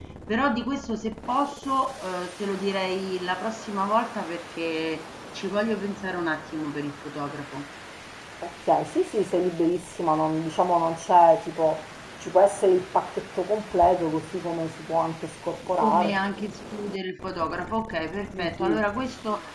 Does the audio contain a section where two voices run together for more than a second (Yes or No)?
No